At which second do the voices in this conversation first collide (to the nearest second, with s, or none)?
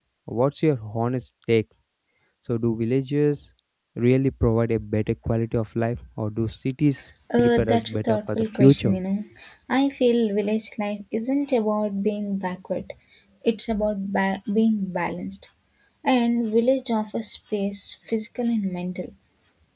7 s